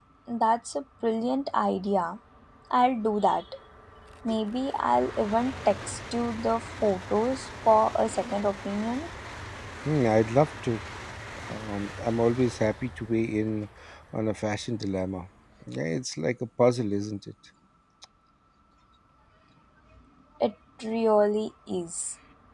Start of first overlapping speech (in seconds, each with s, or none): none